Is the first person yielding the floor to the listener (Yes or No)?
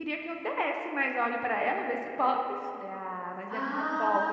Yes